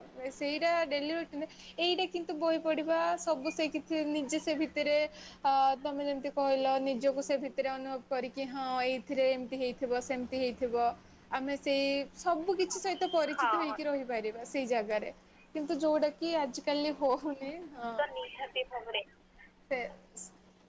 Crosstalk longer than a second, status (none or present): none